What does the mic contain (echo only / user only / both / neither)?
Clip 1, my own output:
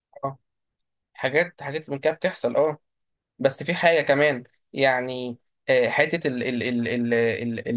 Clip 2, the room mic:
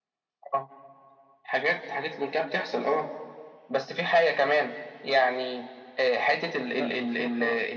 both